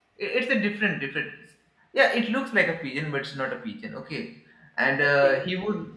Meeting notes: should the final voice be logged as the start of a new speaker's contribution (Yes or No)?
No